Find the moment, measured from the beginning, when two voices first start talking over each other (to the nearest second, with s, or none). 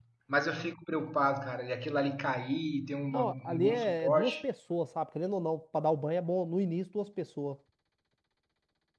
3 s